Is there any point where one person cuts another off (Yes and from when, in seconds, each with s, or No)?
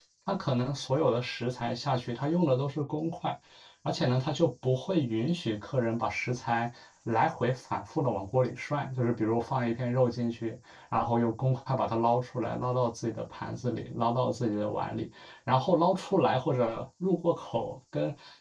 No